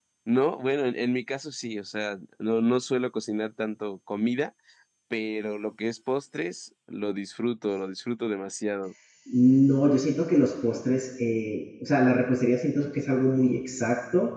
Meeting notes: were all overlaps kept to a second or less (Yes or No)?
Yes